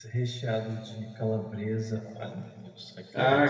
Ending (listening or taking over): taking over